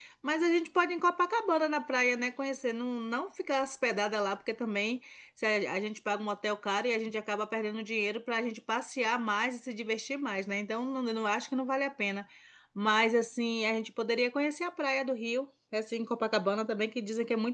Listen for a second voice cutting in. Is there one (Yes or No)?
No